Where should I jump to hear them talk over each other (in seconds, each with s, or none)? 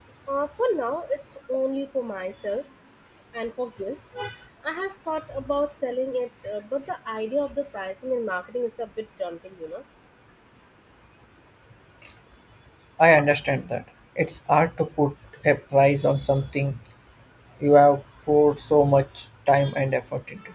none